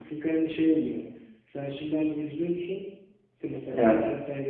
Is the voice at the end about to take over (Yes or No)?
No